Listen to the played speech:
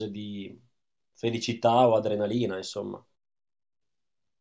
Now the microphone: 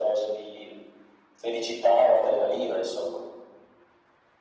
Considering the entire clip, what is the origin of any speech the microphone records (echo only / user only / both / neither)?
echo only